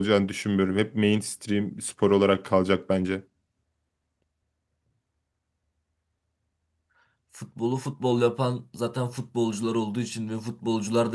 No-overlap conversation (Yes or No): Yes